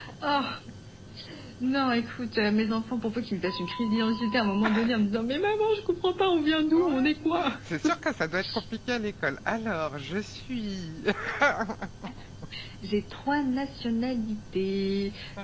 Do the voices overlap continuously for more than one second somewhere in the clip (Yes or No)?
No